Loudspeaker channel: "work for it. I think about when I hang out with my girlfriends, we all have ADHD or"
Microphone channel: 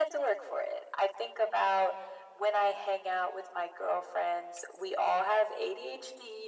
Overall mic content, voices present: echo only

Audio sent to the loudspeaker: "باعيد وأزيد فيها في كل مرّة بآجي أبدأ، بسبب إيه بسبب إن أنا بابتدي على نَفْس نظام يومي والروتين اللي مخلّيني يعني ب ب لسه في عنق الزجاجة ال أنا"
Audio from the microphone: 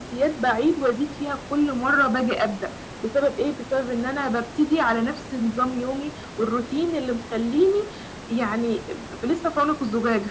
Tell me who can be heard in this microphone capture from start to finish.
echo only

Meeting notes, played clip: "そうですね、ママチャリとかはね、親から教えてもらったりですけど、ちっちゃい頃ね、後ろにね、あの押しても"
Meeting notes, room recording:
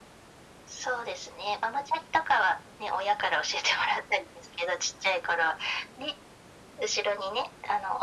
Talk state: echo only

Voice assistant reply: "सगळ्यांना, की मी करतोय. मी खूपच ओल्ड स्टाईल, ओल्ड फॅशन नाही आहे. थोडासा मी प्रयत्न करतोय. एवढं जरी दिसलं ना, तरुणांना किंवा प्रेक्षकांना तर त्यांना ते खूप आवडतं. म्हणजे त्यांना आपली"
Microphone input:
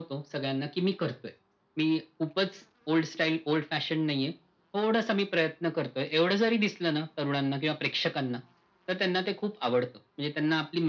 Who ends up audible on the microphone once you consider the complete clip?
echo only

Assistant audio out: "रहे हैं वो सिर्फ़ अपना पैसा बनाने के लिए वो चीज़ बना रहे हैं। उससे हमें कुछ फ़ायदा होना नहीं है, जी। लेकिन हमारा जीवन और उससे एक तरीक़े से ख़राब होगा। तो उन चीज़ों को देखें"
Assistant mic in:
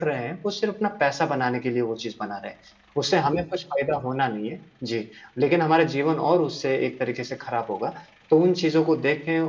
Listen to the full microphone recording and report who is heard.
echo only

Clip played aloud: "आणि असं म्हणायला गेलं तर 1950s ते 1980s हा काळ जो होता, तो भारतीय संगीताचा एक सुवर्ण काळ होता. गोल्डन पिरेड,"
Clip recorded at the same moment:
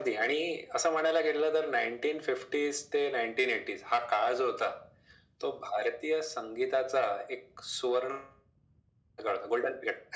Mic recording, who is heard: echo only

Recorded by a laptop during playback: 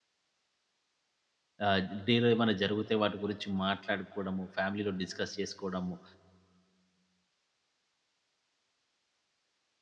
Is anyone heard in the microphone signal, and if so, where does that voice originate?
user only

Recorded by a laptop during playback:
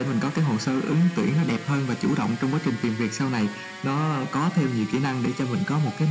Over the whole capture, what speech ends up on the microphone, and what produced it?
echo only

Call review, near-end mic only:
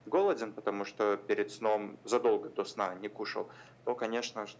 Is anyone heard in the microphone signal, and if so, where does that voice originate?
echo only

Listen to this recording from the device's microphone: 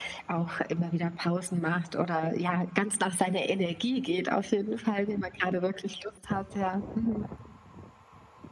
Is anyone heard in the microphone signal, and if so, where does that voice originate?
echo only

